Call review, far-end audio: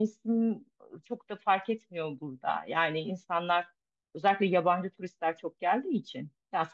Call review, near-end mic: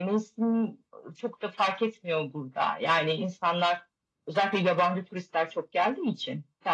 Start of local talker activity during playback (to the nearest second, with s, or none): none